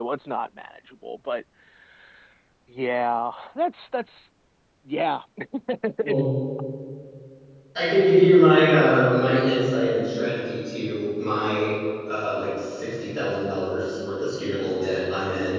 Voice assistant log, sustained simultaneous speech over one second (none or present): none